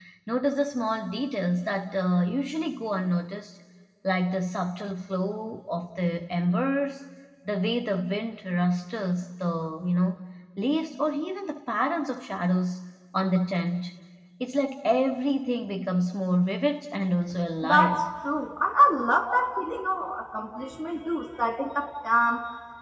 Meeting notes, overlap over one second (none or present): none